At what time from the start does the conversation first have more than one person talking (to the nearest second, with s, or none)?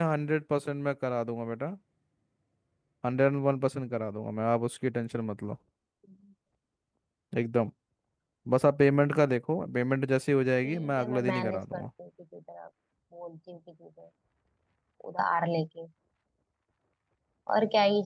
11 s